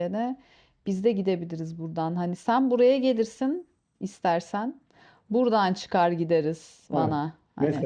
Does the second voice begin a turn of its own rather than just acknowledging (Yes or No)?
Yes